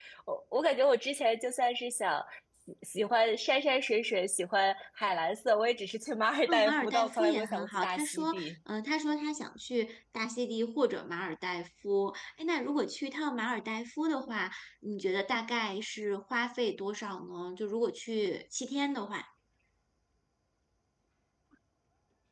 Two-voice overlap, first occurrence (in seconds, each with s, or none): 6.5 s